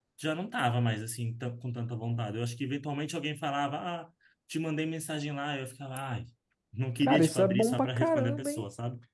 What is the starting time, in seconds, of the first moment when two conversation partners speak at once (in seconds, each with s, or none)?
7.0 s